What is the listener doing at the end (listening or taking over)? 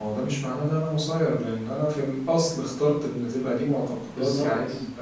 listening